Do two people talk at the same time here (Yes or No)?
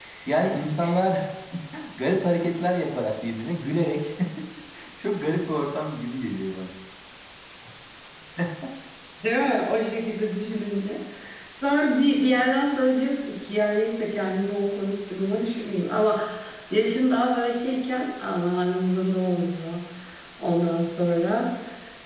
No